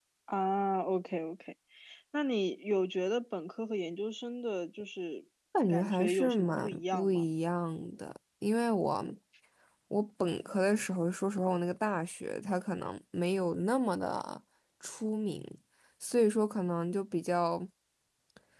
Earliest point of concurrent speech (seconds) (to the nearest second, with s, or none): 6 s